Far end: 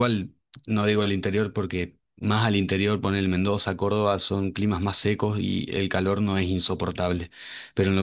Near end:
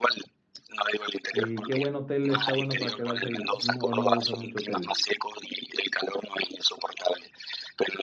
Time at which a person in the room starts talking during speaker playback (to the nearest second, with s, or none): 1 s